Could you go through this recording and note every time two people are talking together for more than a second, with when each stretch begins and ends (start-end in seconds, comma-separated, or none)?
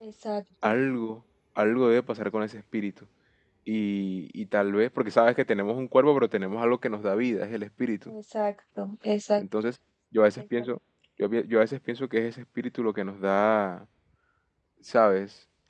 none